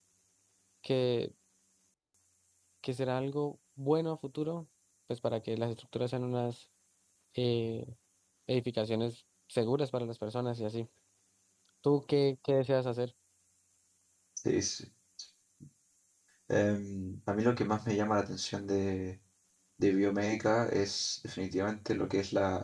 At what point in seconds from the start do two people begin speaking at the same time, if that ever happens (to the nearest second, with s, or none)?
none